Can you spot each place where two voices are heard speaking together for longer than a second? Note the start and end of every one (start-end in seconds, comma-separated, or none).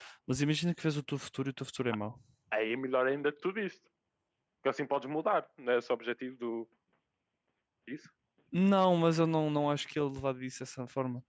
none